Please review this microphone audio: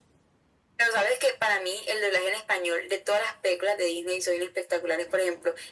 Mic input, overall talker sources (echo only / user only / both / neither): echo only